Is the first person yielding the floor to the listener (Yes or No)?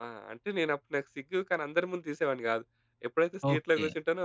No